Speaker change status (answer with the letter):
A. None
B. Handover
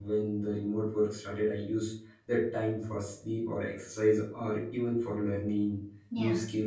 A